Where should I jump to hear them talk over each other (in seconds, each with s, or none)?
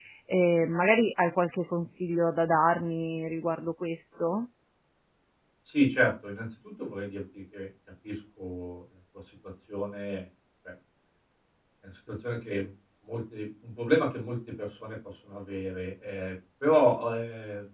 none